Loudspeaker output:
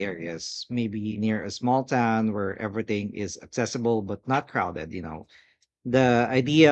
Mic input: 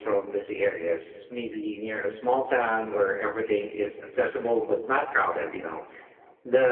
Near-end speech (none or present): none